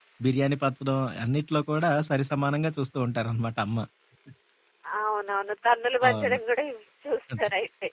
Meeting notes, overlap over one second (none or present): none